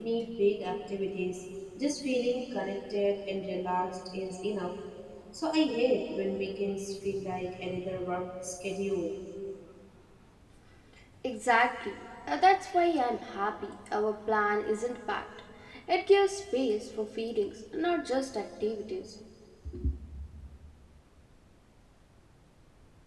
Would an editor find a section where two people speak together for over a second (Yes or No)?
No